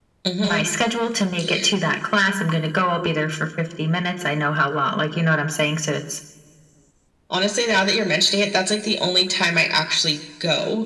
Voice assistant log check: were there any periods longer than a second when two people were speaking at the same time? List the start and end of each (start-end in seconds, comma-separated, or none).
none